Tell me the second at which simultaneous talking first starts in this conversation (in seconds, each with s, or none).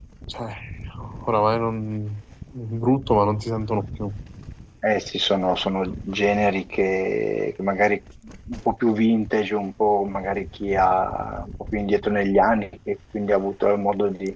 none